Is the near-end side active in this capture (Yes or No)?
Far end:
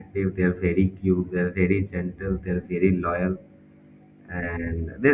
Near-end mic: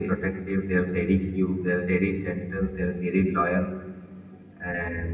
No